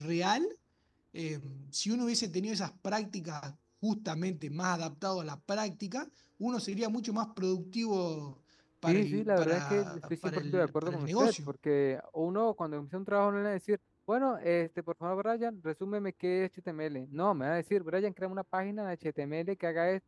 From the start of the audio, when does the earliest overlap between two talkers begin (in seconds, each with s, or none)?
8.9 s